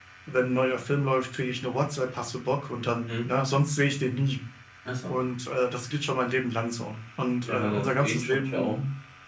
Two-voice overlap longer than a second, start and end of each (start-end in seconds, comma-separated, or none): 7.4-8.8